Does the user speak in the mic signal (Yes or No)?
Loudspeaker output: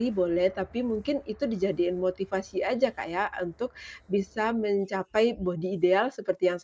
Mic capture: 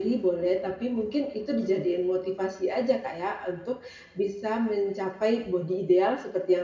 No